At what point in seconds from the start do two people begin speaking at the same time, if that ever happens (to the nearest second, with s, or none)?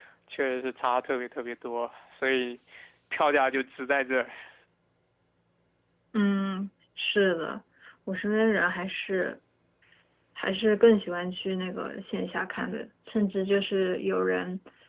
none